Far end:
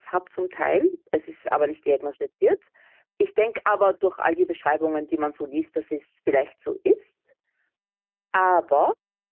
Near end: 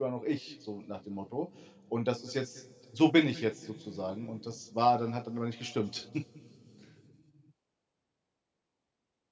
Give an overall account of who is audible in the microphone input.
user only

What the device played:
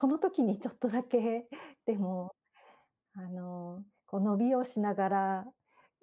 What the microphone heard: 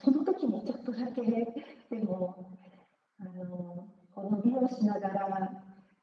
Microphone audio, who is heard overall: echo only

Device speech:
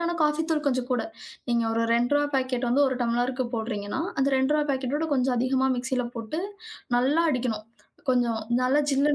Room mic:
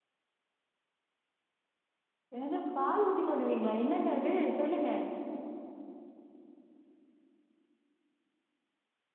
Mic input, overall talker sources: user only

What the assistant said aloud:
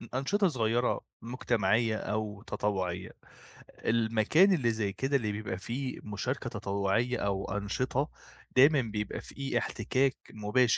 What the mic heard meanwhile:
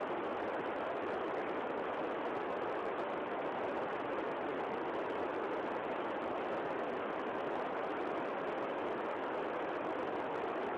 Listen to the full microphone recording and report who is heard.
neither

